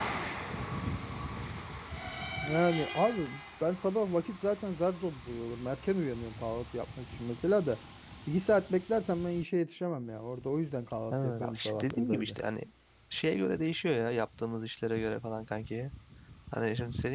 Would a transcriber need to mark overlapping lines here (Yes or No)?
Yes